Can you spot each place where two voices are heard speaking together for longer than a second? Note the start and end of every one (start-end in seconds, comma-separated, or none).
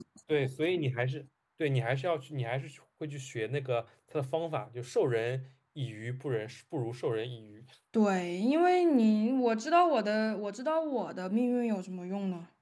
none